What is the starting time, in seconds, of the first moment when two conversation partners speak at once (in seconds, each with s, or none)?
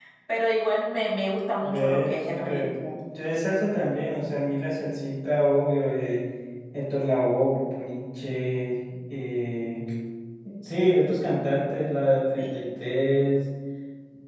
1.6 s